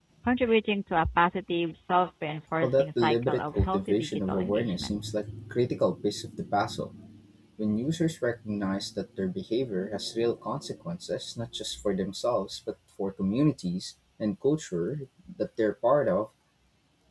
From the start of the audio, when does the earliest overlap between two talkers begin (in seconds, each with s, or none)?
2.6 s